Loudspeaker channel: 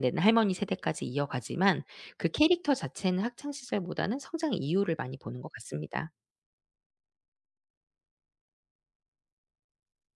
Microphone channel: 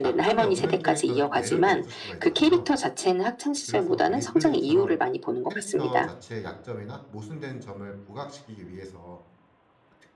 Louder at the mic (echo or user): echo